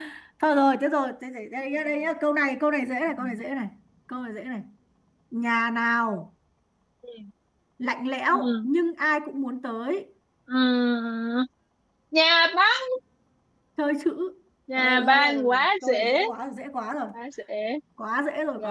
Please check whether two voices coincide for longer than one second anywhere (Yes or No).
Yes